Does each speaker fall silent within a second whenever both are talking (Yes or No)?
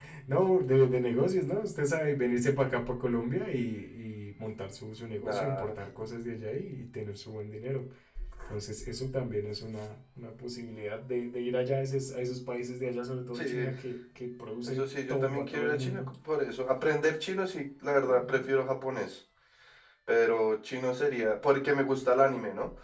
No